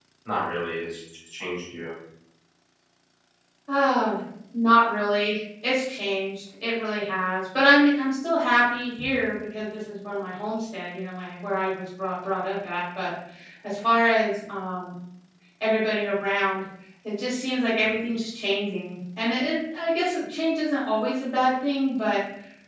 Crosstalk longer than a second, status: none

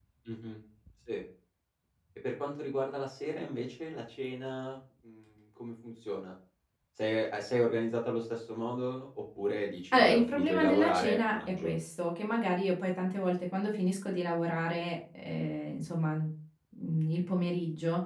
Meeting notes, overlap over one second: present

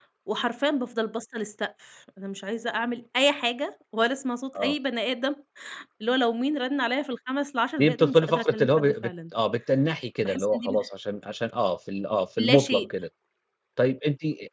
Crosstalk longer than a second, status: present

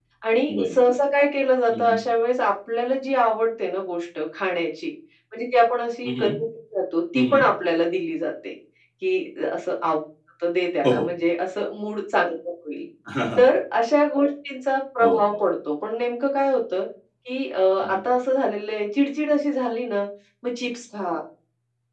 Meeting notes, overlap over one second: none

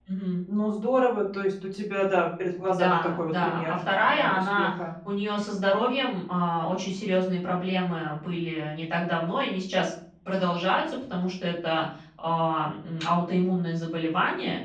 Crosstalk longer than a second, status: present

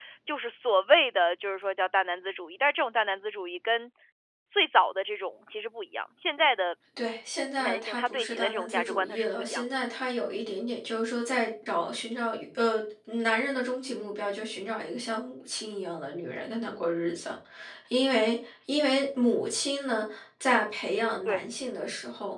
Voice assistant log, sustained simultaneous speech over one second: present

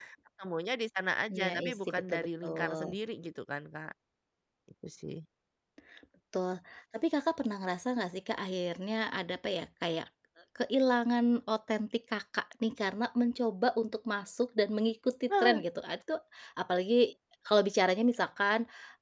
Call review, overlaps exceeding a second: present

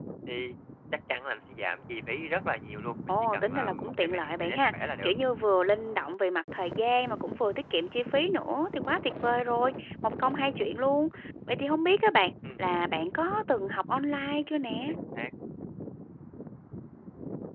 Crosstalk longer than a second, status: present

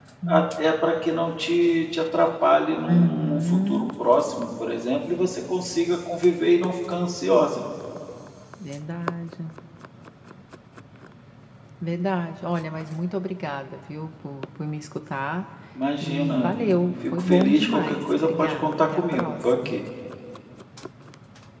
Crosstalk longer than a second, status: present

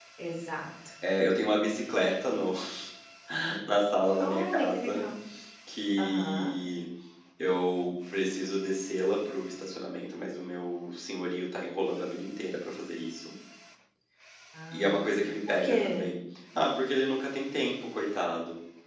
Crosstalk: present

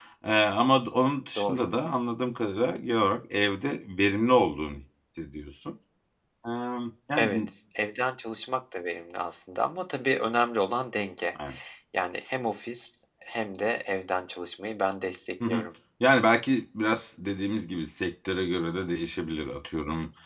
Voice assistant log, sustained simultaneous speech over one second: none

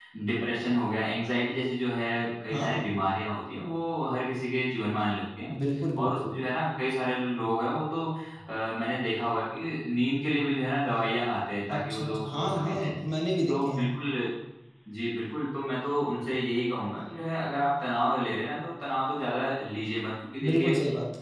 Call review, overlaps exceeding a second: present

